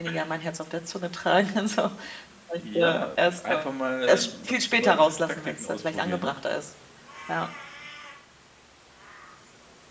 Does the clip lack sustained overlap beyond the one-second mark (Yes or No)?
No